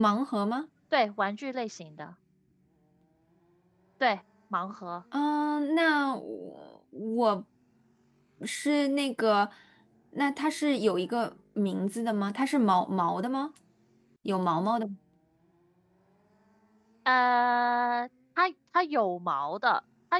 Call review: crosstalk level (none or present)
none